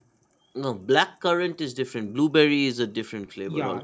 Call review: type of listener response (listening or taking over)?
taking over